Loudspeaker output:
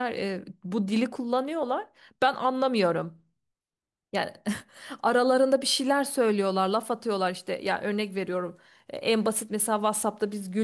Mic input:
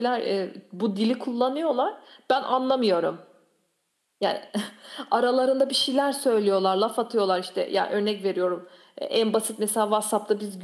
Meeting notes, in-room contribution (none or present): none